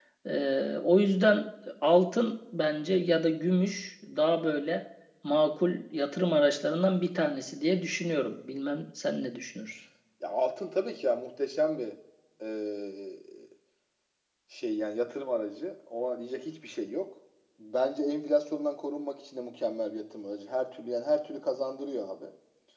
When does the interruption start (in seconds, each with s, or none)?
none